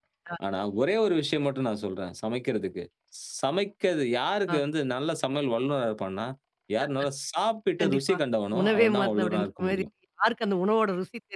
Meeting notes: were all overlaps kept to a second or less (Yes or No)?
No